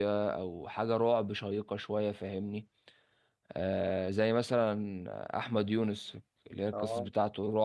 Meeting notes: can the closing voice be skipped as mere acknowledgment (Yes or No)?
Yes